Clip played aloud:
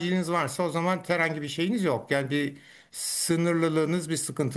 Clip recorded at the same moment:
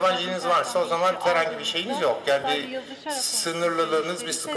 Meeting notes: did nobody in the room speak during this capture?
No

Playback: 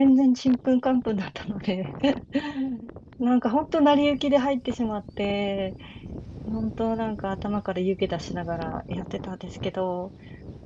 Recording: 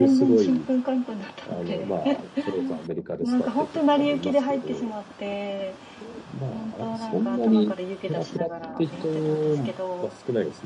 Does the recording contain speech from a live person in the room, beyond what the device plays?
Yes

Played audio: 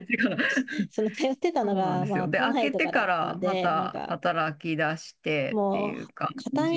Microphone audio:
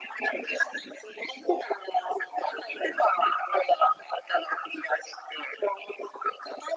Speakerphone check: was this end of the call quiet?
Yes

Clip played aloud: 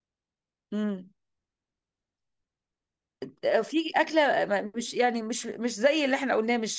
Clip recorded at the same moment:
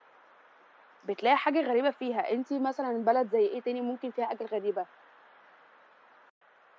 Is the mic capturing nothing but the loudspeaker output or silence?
No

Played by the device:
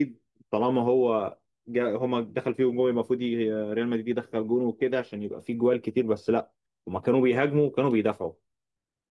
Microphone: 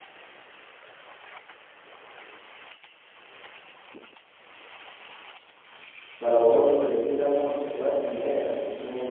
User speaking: Yes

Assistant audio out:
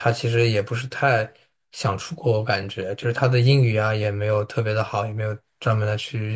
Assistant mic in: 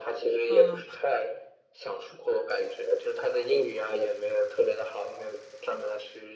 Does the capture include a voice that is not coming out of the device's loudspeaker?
Yes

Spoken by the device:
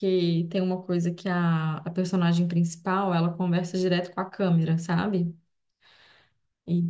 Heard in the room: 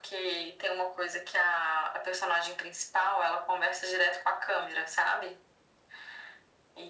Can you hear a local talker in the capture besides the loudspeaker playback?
No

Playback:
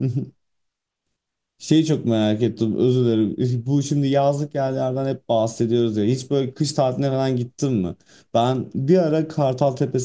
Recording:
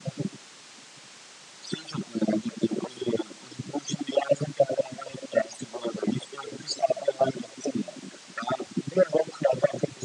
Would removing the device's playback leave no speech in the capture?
Yes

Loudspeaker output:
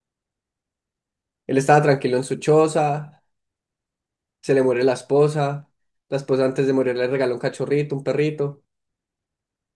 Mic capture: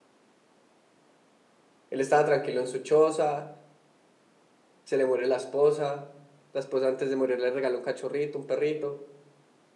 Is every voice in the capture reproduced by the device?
Yes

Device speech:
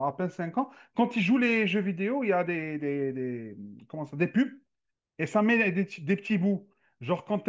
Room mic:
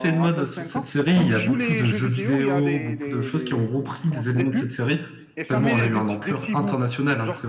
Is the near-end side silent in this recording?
No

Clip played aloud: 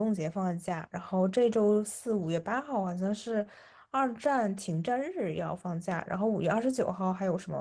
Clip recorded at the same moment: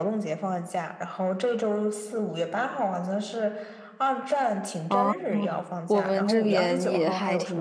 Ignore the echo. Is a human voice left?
Yes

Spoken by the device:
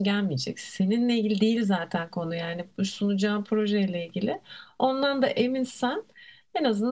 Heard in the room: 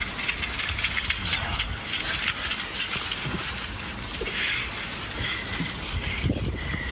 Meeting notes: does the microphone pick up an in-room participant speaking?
No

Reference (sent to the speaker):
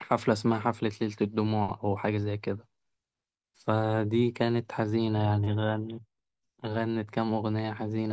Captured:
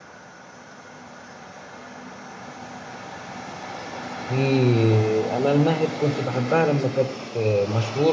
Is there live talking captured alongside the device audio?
Yes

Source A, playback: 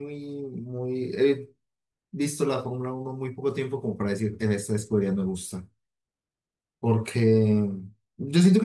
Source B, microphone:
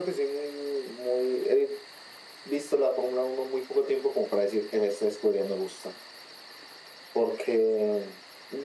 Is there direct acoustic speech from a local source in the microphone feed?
No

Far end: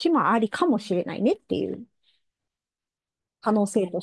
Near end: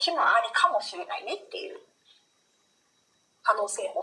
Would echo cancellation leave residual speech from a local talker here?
No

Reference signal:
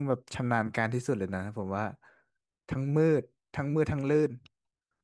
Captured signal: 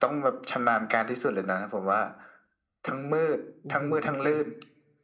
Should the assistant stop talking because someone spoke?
Yes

